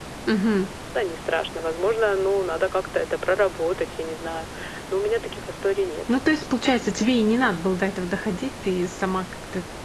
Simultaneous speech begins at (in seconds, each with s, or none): none